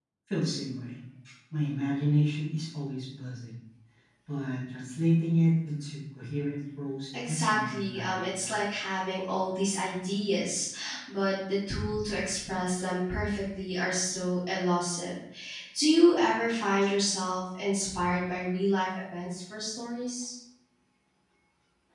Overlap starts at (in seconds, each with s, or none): 7.1 s